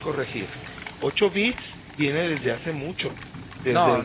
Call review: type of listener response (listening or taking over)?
taking over